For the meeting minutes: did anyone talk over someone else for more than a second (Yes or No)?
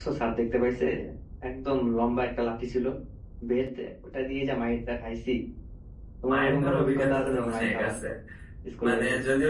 Yes